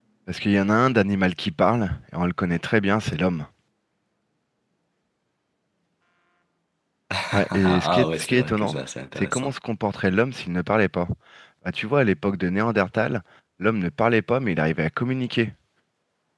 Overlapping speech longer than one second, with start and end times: 7.5-8.8

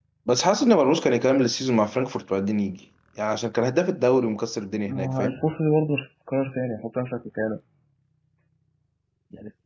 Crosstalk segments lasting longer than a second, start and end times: none

